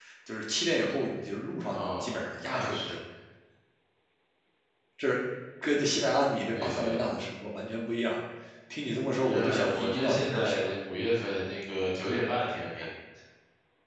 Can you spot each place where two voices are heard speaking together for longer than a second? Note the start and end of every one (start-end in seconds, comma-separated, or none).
1.7-3.0, 9.2-10.7